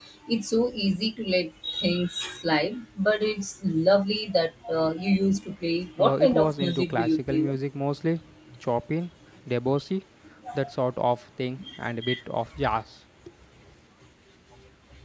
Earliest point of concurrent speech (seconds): 6 s

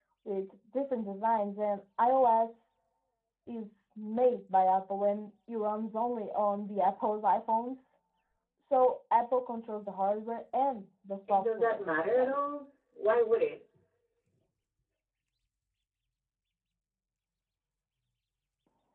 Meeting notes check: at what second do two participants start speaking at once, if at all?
11 s

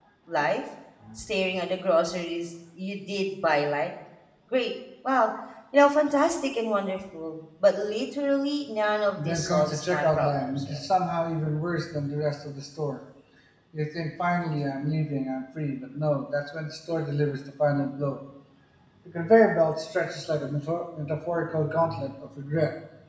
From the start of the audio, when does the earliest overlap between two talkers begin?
9 s

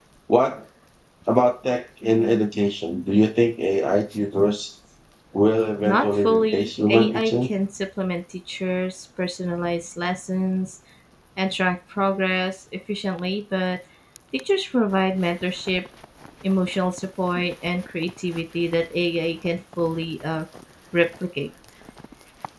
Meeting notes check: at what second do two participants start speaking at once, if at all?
6 s

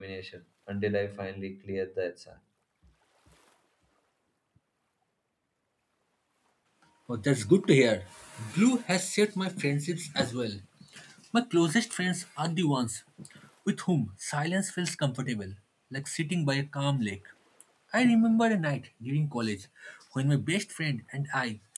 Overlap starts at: none

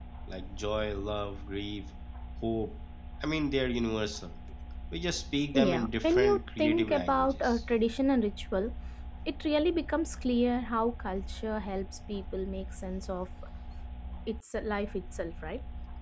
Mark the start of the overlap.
6 s

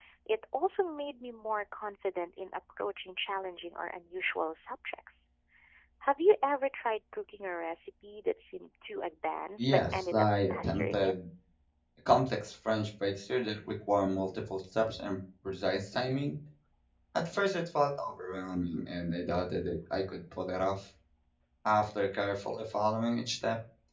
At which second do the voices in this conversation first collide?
10 s

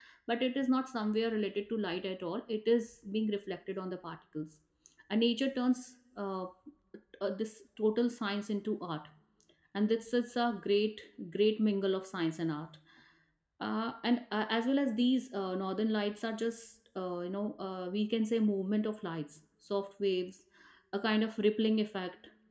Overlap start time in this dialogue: none

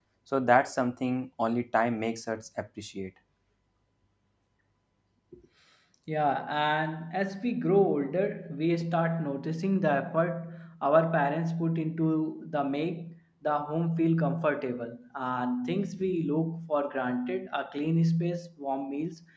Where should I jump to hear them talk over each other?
none

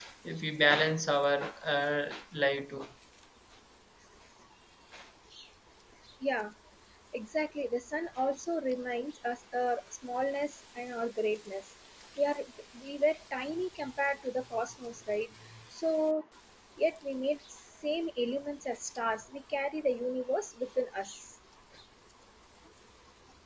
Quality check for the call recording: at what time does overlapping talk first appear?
none

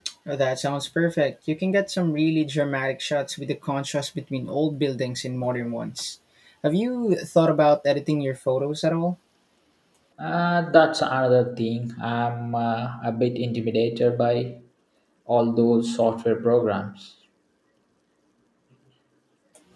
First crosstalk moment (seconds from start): none

